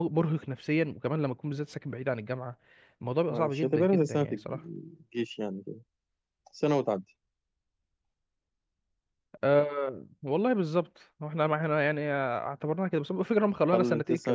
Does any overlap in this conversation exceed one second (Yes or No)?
Yes